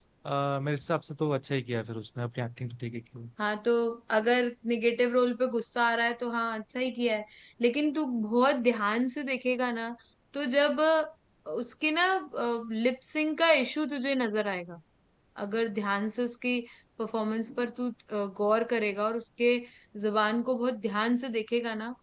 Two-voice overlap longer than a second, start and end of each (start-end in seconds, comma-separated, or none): none